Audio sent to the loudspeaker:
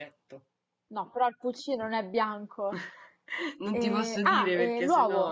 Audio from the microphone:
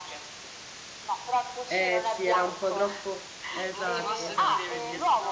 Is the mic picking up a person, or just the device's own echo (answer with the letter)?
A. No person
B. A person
B